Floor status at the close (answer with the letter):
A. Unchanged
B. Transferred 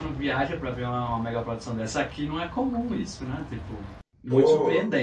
B